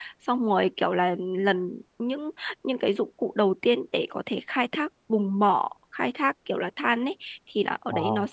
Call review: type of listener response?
listening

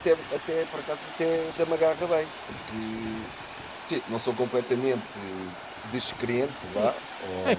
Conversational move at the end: taking over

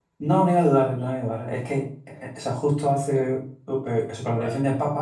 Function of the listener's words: listening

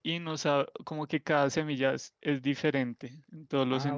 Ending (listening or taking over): taking over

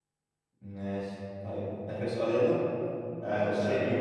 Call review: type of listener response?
listening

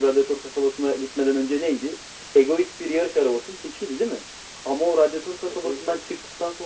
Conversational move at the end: listening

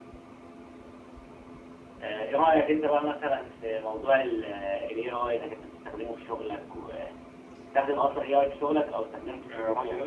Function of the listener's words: taking over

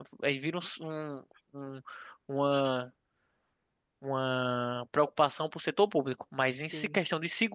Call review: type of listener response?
listening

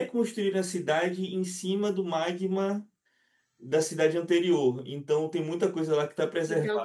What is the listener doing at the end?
taking over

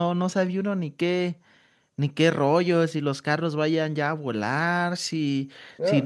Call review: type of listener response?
taking over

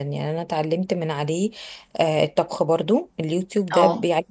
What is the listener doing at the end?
listening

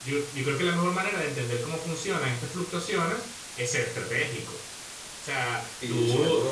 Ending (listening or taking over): taking over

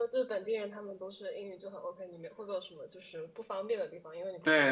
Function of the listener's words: taking over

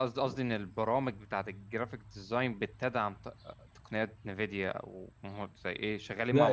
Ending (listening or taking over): taking over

